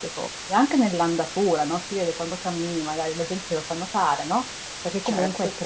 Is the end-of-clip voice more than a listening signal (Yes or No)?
No